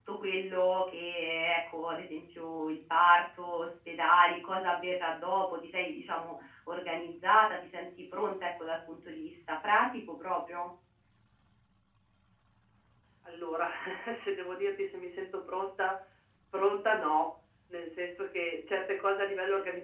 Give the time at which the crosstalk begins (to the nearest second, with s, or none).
none